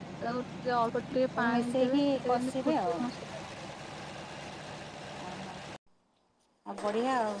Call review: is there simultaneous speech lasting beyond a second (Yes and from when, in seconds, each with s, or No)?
Yes, from 1.4 s